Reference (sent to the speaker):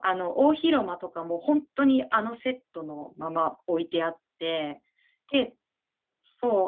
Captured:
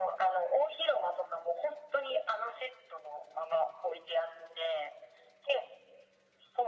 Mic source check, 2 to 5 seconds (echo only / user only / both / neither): echo only